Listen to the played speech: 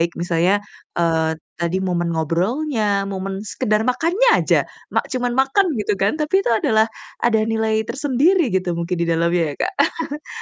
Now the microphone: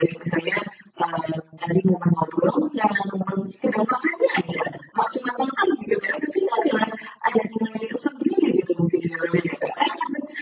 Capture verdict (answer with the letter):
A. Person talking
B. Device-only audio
B